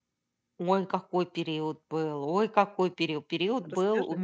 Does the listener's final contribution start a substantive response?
No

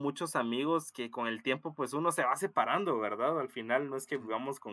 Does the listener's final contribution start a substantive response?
No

